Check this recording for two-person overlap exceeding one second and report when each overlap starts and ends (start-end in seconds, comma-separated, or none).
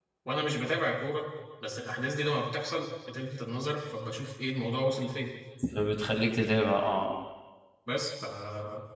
none